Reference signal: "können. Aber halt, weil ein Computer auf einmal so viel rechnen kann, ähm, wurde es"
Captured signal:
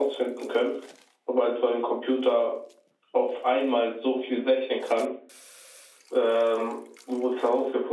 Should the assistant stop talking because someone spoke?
No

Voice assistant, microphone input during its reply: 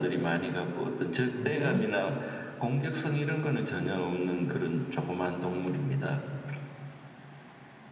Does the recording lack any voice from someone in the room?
No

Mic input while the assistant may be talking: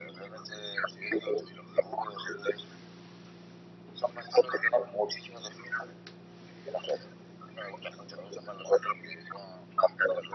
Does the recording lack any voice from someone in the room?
Yes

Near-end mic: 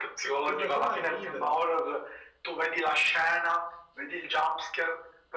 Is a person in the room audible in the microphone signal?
Yes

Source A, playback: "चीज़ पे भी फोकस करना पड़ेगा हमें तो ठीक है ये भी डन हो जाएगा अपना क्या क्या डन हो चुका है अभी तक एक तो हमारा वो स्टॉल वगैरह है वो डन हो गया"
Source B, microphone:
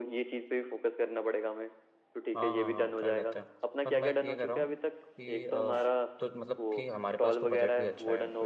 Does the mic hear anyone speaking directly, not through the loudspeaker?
Yes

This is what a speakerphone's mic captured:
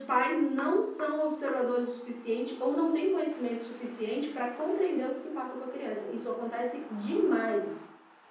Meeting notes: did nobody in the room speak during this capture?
Yes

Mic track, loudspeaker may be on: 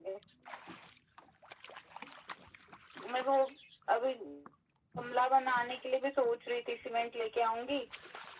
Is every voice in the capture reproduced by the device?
Yes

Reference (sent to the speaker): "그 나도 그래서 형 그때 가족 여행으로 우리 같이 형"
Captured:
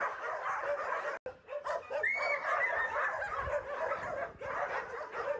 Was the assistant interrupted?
No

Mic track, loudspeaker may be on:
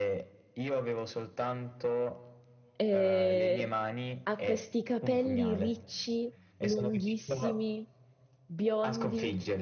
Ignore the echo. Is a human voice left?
Yes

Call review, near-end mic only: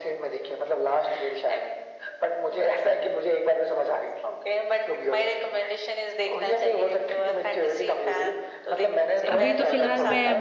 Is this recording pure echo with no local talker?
No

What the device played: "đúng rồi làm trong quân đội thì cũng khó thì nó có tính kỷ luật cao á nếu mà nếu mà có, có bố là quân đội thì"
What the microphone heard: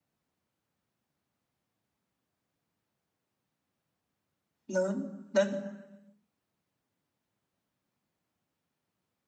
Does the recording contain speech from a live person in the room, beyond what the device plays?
Yes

